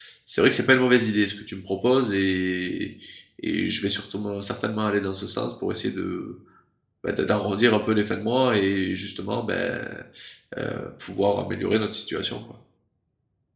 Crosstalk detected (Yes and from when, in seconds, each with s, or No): No